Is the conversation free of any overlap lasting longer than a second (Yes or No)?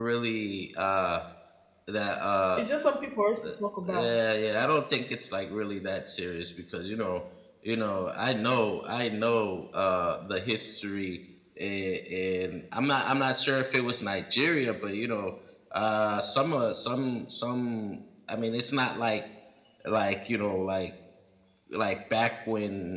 Yes